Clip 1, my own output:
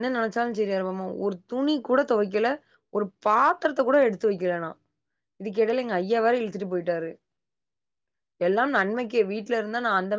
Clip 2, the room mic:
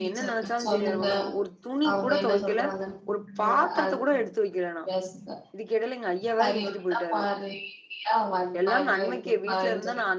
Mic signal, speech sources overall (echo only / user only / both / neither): both